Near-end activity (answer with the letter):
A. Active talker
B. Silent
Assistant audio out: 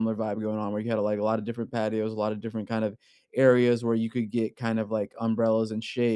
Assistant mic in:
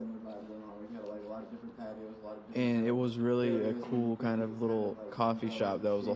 A